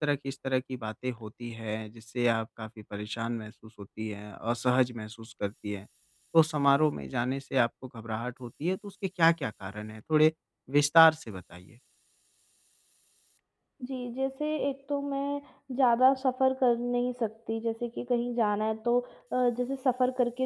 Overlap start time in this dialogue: none

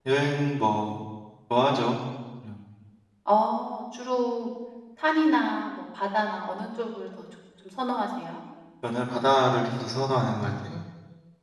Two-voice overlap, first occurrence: none

